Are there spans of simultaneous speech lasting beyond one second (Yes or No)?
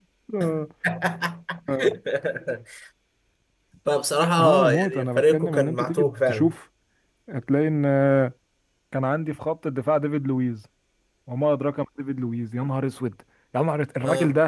Yes